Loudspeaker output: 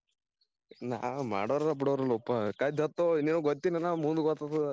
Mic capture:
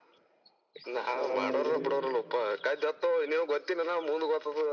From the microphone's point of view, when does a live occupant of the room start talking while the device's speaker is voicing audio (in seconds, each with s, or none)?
0.9 s